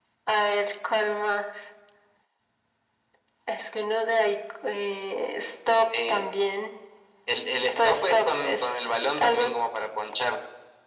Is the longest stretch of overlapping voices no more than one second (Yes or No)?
No